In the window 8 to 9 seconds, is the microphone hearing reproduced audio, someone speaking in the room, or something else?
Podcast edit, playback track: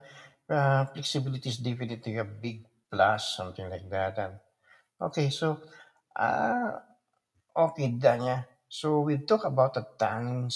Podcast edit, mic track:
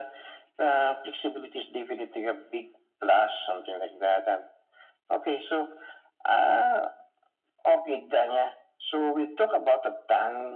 echo only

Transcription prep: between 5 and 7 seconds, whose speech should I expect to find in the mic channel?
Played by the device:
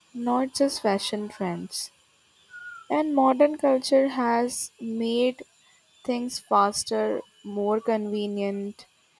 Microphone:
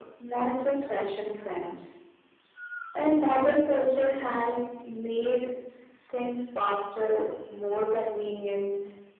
echo only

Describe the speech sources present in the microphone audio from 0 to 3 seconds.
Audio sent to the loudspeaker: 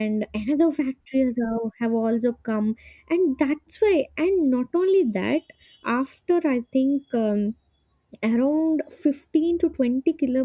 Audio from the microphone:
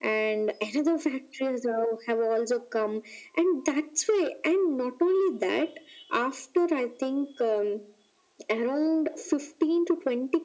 echo only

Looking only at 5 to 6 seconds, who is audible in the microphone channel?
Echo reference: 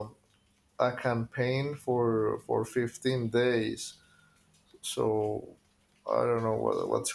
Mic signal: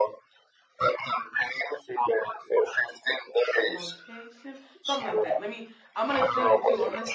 both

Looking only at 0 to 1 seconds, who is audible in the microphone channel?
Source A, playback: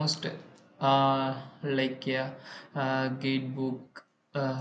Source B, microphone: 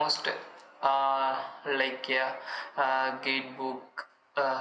echo only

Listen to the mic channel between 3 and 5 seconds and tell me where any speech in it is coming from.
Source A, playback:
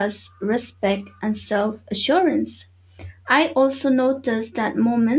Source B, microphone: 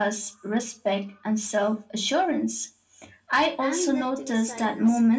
both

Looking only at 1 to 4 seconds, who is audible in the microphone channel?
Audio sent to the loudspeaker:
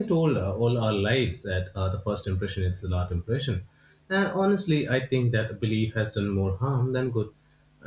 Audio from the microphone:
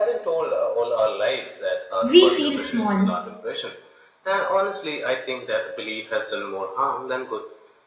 both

